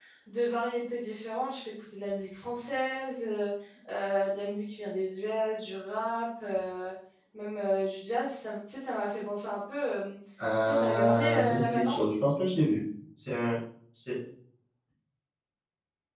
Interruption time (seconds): 10.4 s

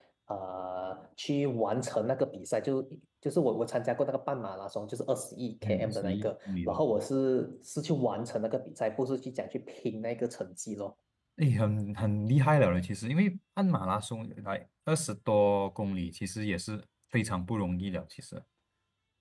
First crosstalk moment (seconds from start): 5.6 s

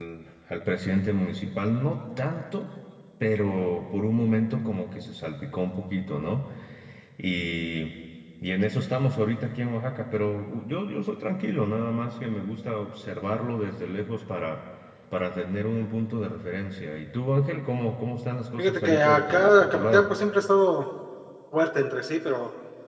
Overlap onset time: 18.6 s

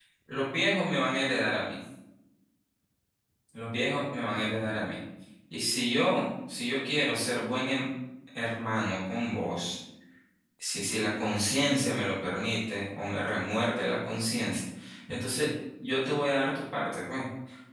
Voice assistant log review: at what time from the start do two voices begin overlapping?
none

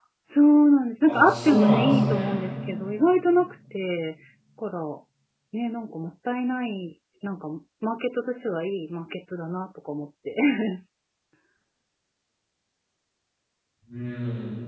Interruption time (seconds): 1.1 s

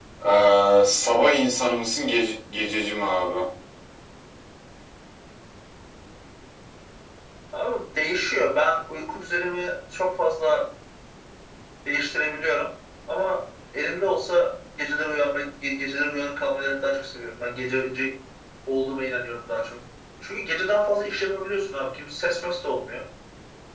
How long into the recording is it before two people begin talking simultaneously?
none

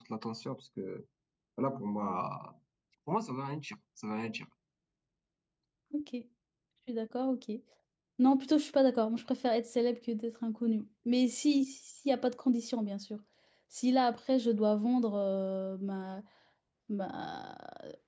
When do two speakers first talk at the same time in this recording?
none

